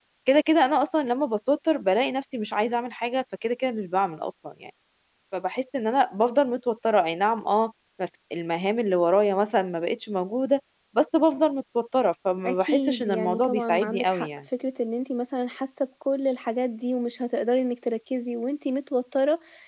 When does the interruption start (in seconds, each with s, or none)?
12.4 s